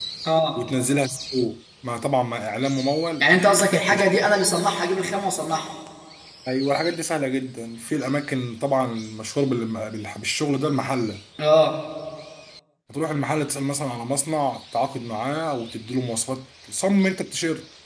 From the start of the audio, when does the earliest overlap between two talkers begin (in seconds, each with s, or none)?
none